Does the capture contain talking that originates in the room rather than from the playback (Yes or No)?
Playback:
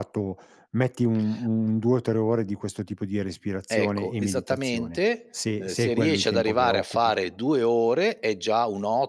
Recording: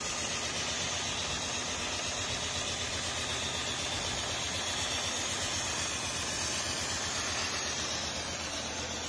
No